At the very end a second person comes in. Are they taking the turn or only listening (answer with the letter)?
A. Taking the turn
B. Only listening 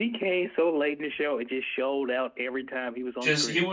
A